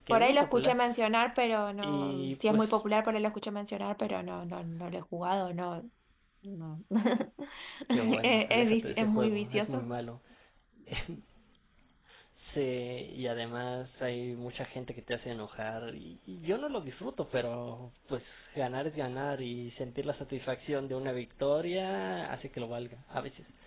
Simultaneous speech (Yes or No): Yes